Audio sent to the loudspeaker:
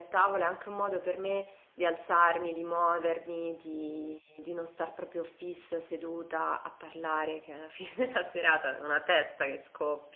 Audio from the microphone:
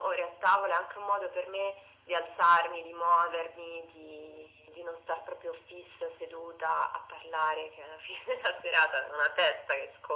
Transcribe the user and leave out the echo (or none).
none